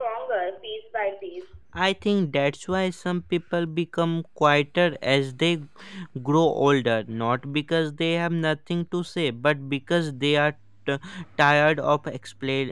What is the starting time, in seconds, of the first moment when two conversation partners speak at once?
none

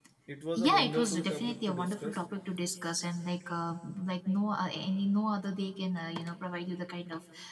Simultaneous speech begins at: 1 s

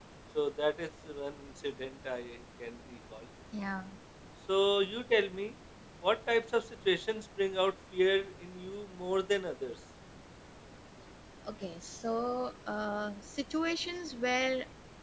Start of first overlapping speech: none

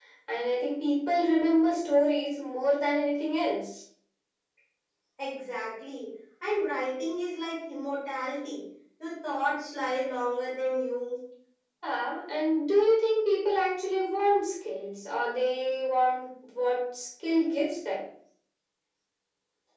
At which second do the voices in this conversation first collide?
none

